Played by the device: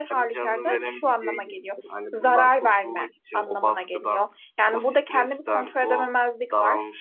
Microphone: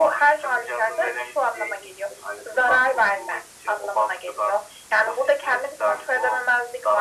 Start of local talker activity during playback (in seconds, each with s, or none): none